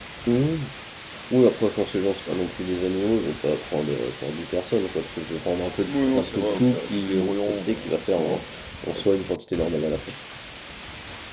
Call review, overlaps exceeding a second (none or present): present